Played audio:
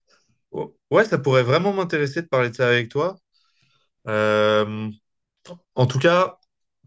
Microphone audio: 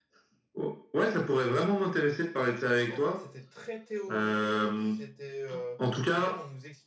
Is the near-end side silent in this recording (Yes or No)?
No